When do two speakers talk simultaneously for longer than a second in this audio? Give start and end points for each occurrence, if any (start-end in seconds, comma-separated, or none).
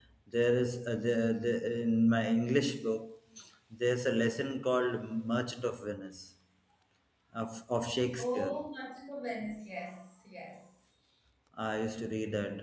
none